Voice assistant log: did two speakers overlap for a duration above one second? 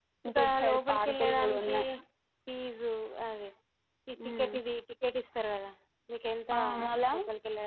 Yes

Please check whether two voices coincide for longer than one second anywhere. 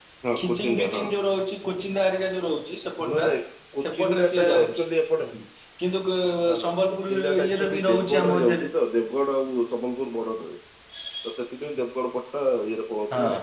Yes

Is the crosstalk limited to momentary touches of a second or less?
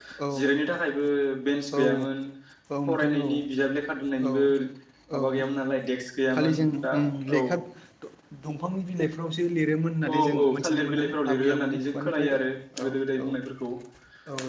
No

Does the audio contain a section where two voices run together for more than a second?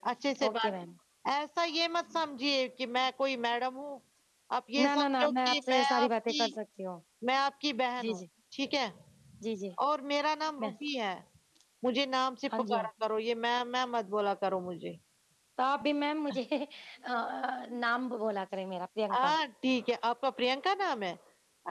Yes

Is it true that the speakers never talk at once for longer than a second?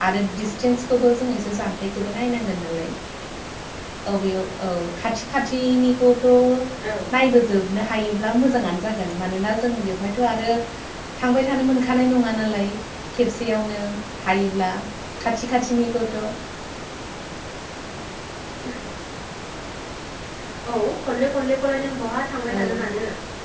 Yes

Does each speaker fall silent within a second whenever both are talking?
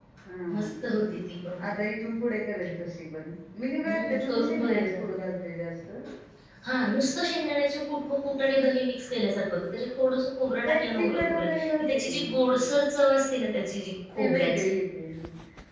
No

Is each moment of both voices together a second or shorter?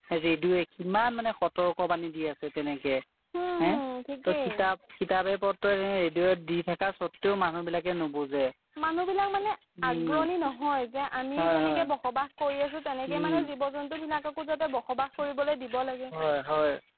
Yes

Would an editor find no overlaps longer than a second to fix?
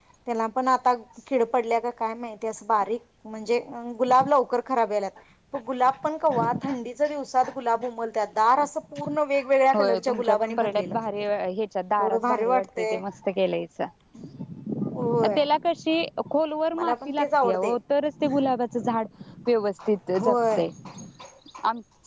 No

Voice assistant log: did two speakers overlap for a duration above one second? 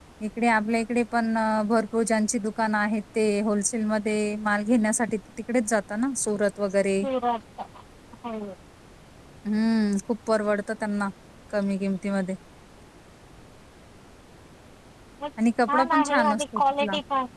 Yes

